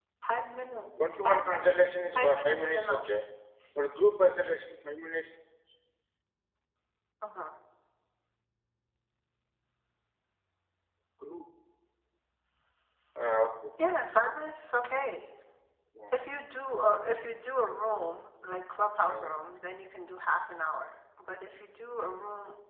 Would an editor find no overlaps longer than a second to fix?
No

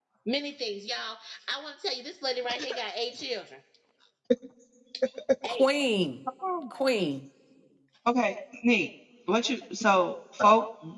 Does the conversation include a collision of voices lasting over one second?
No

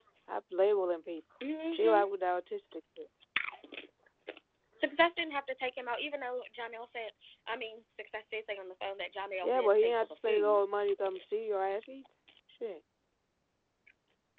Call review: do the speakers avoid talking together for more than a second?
No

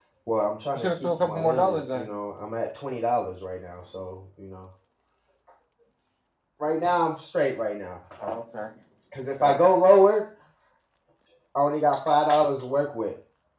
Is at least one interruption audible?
Yes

